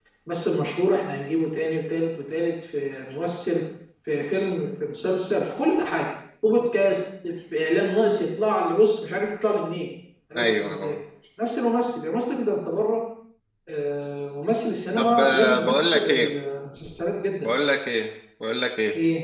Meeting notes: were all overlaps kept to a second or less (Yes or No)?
No